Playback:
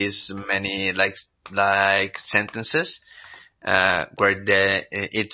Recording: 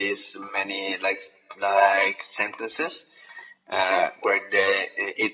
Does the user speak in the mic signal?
No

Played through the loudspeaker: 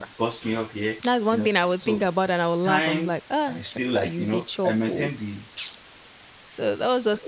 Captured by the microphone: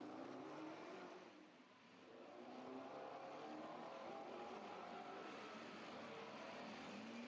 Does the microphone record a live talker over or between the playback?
No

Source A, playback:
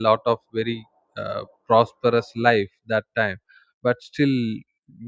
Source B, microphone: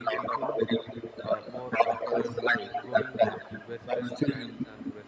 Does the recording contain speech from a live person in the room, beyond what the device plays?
Yes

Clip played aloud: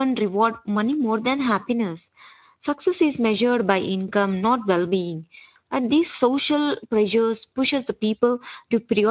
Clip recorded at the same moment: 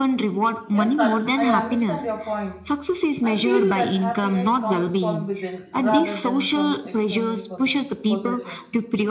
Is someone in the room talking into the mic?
Yes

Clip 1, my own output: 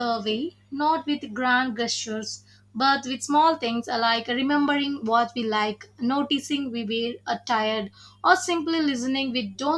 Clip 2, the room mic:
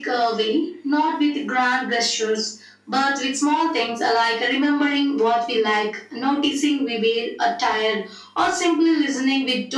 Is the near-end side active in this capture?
No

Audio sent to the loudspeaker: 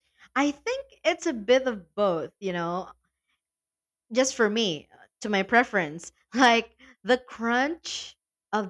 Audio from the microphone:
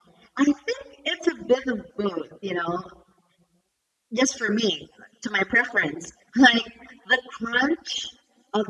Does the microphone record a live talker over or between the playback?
No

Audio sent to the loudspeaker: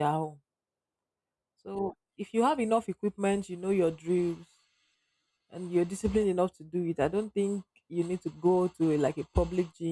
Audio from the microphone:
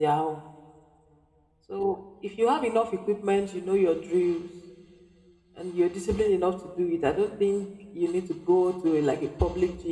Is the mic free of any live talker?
Yes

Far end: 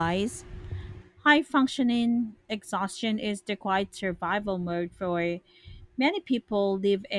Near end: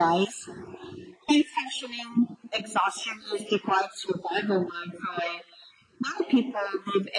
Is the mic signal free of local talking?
Yes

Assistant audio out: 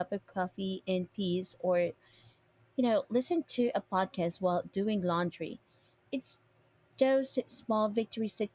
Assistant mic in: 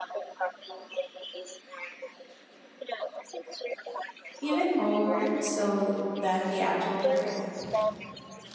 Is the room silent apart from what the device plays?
No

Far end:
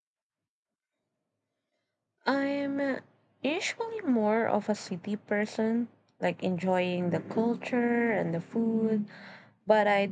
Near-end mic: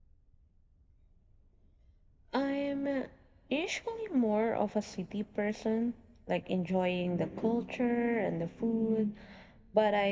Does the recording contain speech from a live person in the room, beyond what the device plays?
No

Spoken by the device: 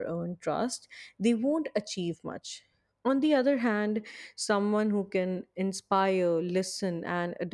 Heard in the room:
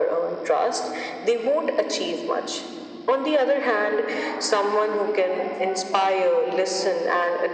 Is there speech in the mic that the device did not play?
Yes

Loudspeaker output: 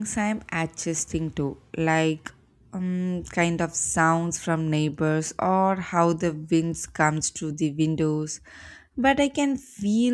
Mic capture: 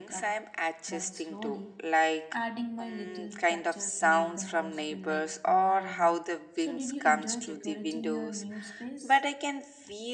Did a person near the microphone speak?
Yes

